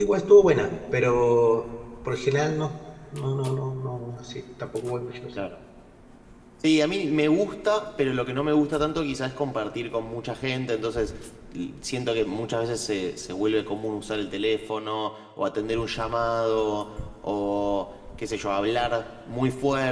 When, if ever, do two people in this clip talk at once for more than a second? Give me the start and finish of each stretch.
none

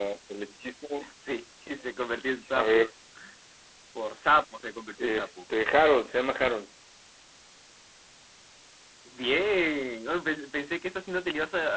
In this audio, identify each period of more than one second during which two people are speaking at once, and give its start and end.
none

